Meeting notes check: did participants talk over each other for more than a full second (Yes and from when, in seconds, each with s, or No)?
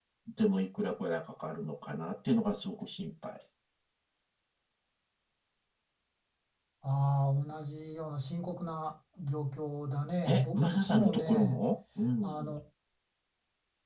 Yes, from 10.3 s